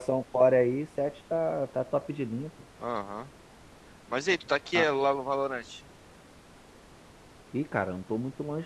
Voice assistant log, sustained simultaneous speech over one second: none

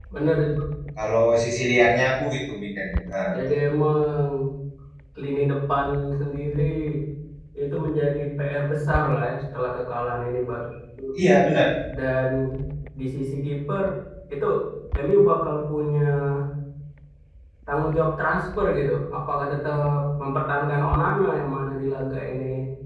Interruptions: none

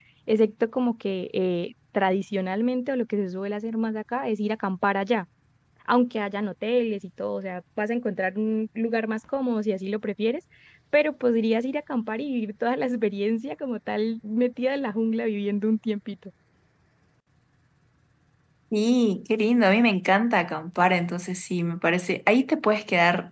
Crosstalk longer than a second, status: none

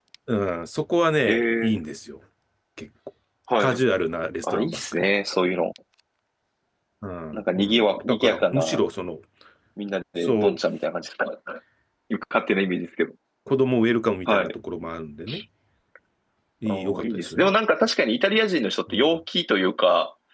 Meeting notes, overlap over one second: present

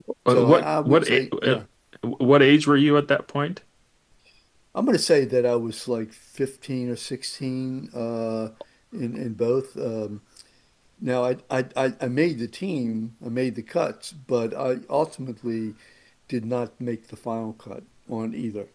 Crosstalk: present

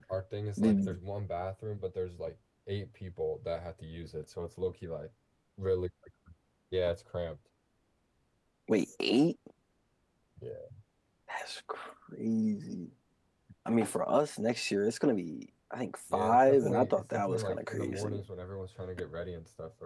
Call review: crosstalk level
present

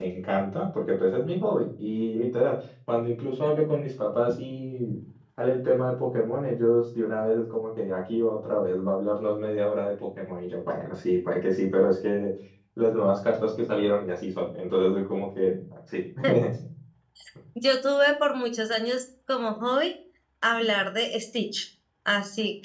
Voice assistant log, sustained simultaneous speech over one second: none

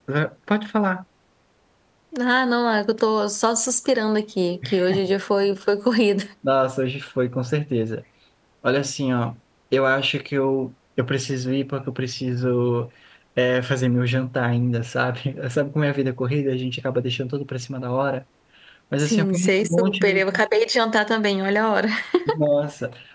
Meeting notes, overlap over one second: present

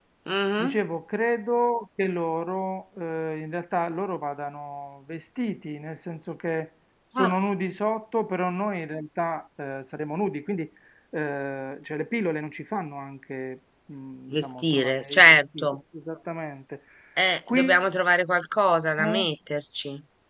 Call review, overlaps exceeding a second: present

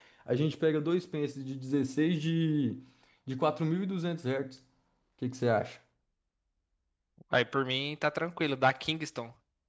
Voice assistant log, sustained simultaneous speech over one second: none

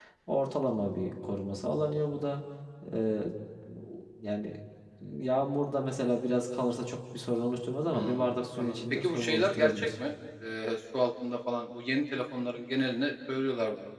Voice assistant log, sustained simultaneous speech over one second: present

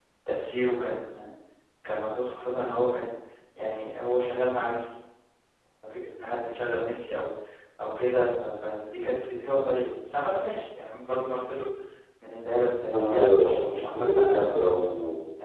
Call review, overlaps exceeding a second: present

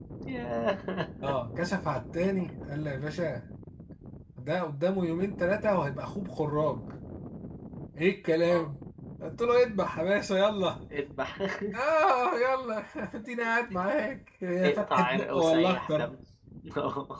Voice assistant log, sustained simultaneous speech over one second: present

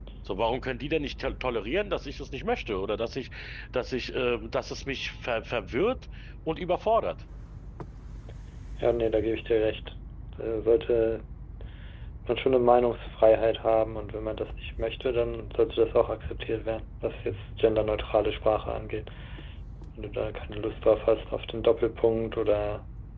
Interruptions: none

